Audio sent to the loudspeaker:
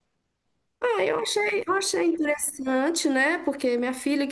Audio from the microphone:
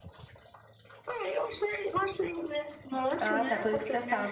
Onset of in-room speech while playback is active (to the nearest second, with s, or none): 3 s